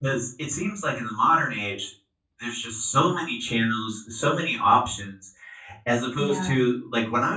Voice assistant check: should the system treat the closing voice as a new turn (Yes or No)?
No